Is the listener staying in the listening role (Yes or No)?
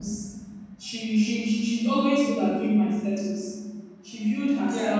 Yes